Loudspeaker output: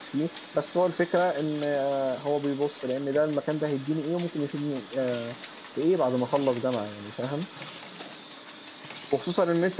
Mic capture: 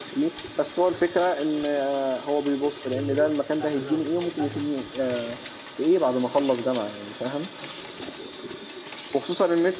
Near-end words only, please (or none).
بيروح الساعة كذا وبيخلص الساعة كذا